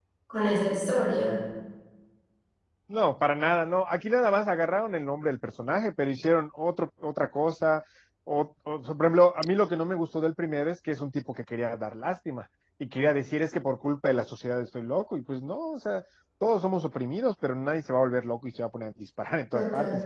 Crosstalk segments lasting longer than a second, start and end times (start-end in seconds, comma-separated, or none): none